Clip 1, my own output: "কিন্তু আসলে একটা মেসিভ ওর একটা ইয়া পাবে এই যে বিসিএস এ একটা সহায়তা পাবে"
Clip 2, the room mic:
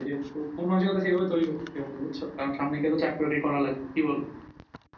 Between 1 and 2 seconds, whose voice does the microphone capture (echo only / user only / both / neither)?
user only